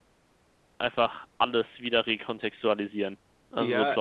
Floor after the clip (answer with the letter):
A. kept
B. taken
B